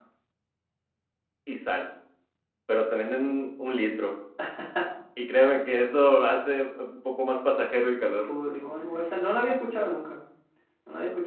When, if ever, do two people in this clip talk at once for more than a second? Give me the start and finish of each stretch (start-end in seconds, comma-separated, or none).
none